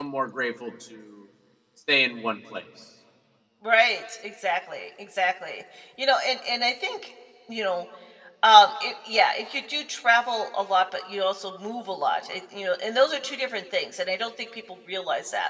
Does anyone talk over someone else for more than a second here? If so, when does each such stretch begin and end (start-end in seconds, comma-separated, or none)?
none